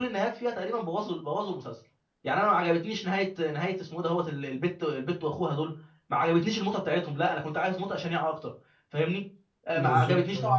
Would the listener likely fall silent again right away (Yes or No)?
Yes